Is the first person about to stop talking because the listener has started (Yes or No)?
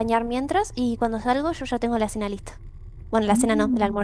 Yes